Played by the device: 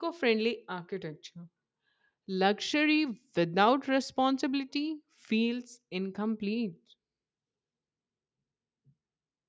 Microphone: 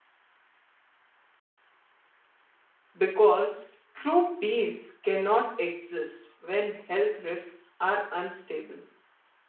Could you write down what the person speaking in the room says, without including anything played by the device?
because true peace cannot exist when health risks are unstable

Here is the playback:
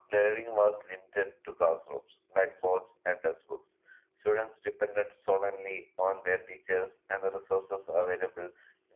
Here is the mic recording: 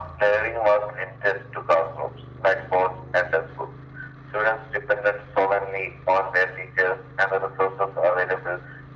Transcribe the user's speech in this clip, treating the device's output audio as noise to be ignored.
none

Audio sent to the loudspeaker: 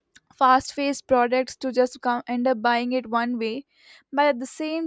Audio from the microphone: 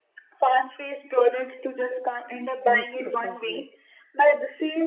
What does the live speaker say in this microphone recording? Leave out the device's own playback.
Use responsibly.

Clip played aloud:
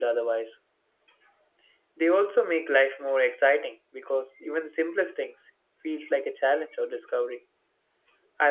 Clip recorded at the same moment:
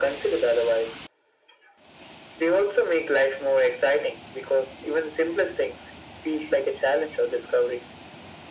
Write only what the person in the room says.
none

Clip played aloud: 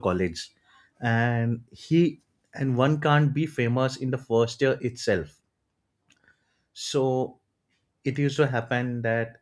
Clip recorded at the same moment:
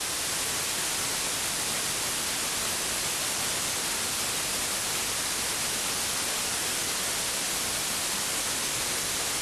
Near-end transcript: none

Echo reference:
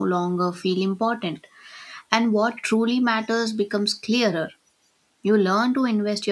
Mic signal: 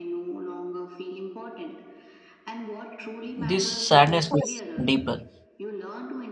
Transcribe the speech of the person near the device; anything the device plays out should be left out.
This sadness is deeper.

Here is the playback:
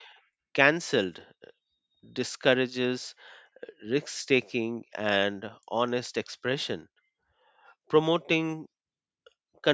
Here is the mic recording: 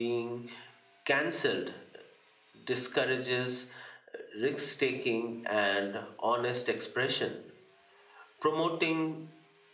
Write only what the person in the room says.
none

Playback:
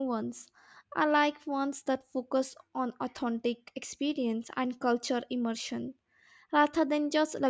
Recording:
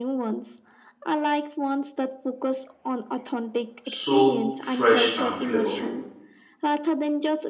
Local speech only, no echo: so fresh and flavorful.

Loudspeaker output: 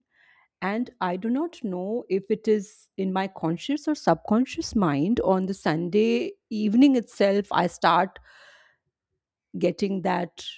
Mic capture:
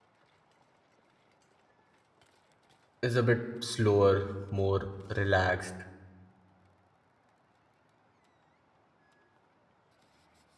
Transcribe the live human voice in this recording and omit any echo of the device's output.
is a bit slower more relaxed

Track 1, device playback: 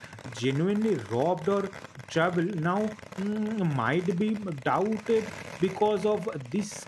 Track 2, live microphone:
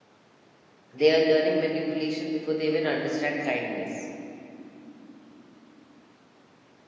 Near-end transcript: they are learning manipulation before they even understand kindness.

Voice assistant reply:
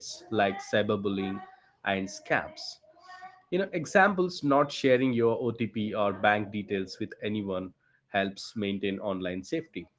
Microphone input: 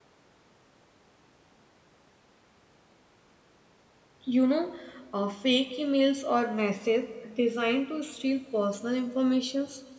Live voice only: you know, uh, fake emails or messages designed to steal personal information

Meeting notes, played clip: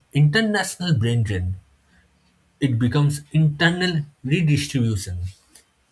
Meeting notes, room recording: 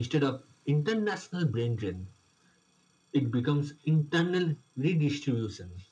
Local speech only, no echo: none

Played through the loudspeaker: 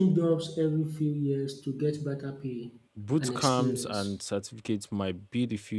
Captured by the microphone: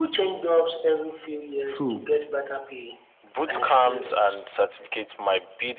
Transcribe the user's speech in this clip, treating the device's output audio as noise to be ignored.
True.

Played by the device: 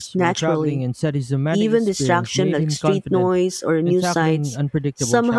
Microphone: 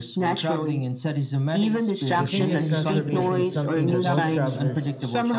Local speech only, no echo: Do you think this transformation is something that most travelers

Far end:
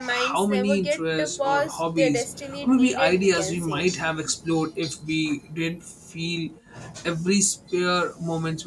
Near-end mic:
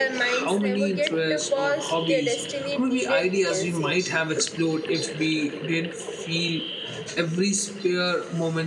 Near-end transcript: none

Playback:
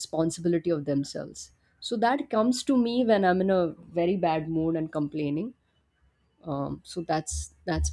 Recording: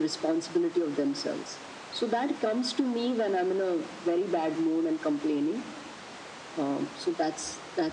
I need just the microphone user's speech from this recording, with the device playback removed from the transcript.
none

